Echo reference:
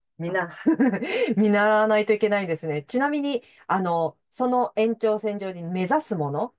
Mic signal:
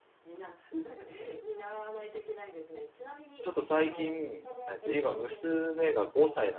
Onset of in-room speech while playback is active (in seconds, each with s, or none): 3.4 s